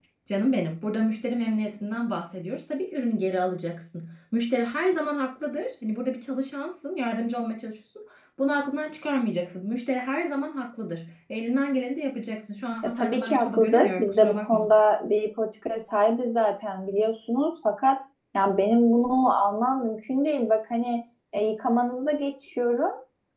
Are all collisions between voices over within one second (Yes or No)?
No